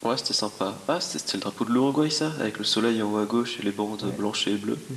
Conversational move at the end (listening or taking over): taking over